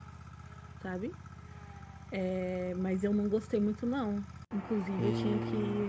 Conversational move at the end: listening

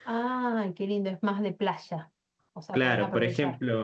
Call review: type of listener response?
taking over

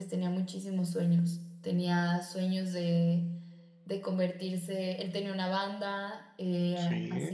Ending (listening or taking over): listening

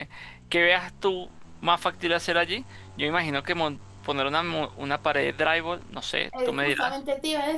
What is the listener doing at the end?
taking over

